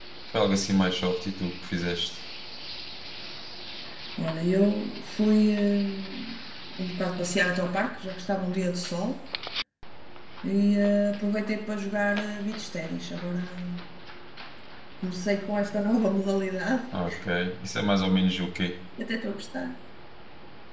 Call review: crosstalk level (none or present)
none